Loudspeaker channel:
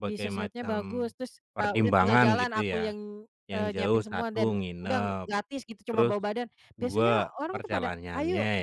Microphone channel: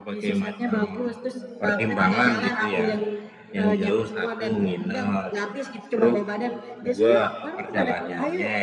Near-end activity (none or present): none